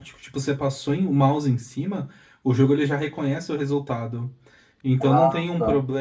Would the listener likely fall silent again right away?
Yes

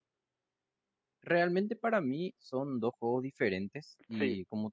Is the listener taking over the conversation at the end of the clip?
No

